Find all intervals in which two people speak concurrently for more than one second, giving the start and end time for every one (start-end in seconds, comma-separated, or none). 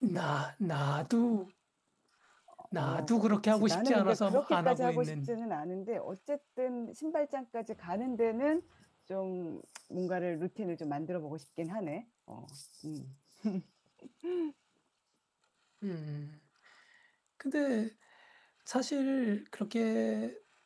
2.8-5.3